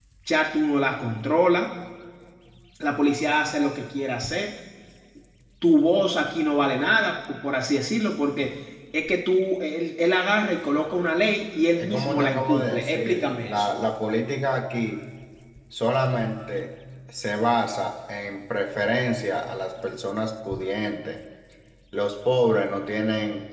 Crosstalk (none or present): present